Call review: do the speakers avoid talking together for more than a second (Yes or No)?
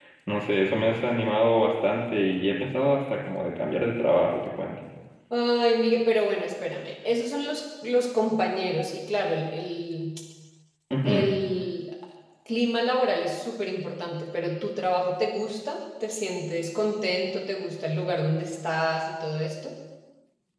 Yes